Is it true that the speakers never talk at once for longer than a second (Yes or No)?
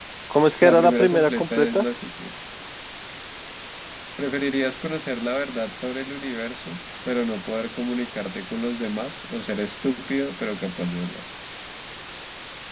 No